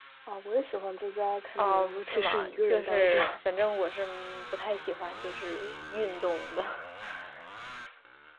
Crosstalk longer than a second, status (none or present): present